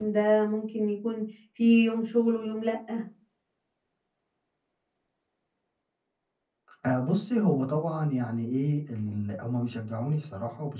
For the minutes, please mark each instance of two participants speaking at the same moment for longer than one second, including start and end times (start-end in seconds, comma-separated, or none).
none